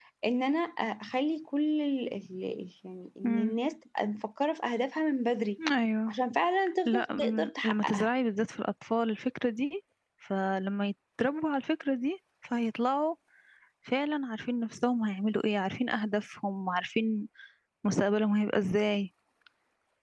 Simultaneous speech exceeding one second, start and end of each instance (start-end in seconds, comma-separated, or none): 6.8-8.1